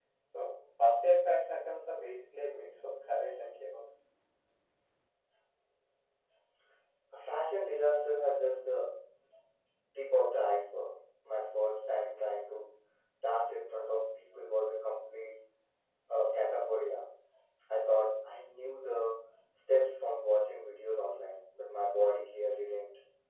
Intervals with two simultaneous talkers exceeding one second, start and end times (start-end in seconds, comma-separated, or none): none